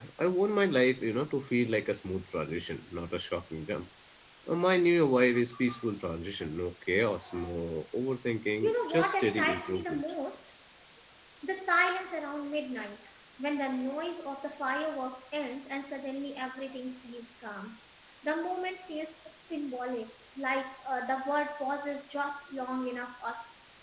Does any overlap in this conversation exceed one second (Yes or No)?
Yes